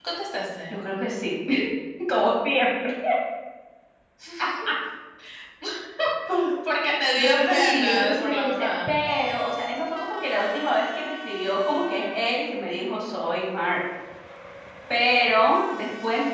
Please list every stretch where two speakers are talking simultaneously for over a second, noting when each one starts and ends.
7.2-8.9

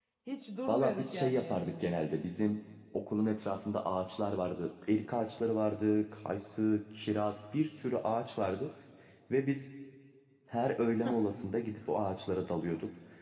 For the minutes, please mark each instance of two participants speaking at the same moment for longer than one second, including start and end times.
0.7-2.1

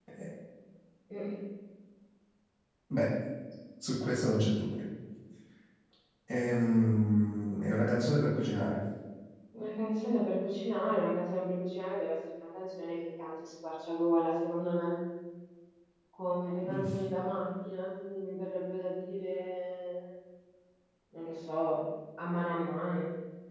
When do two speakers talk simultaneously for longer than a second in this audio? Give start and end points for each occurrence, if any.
none

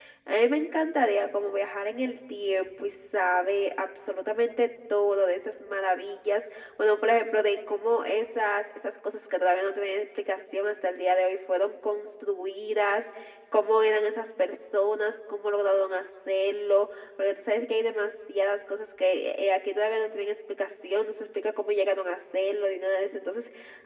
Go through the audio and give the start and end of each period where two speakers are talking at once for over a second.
none

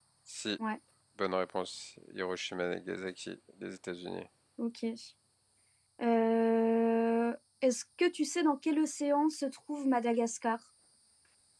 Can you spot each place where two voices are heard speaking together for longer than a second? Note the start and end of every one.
none

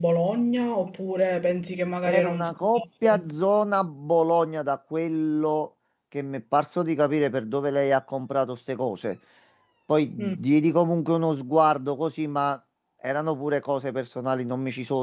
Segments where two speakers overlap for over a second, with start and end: 2.0-3.3

